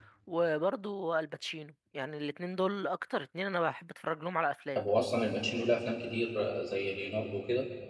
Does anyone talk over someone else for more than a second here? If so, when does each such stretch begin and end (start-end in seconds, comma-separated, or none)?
none